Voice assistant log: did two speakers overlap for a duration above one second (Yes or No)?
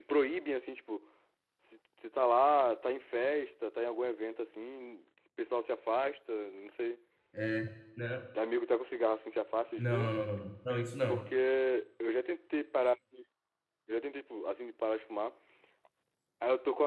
No